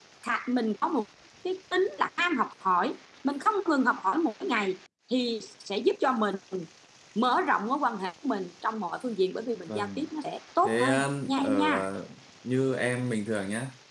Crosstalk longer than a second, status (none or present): present